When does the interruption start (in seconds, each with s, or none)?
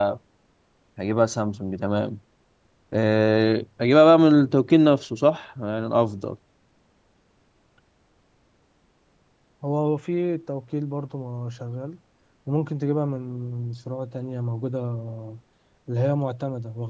none